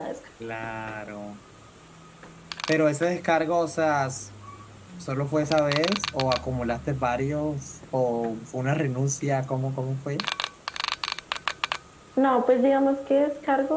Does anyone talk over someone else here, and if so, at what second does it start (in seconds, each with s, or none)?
none